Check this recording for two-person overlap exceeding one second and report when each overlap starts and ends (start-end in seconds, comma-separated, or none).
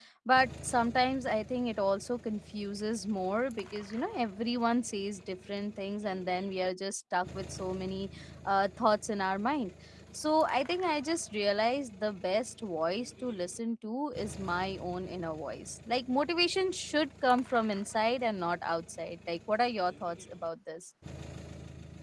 none